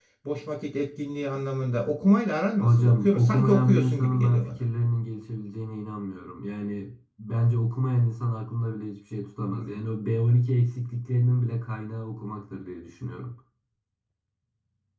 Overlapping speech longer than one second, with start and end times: 2.6-4.6

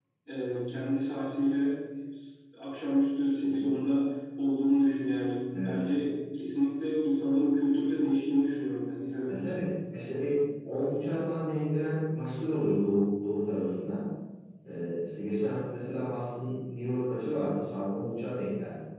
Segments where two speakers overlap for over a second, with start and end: none

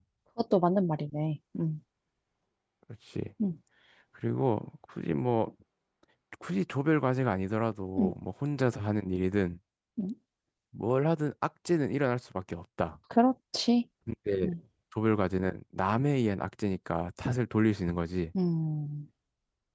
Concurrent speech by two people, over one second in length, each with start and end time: none

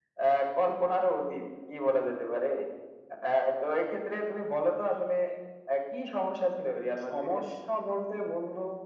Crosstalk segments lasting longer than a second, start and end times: none

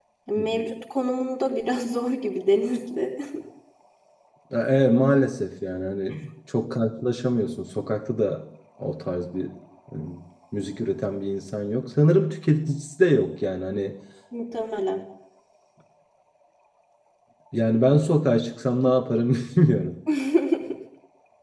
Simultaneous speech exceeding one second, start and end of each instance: none

